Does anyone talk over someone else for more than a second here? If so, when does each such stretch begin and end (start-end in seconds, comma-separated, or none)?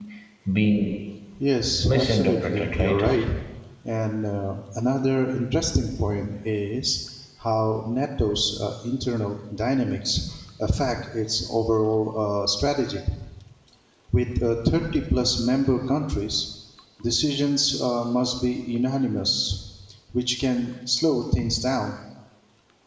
1.8-3.0